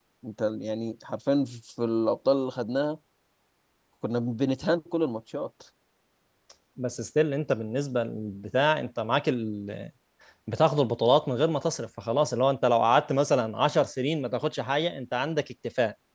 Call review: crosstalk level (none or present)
none